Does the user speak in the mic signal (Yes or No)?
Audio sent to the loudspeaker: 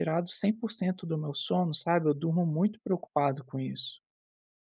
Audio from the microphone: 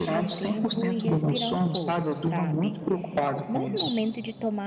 Yes